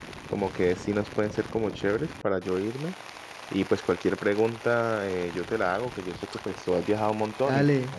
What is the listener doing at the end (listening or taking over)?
taking over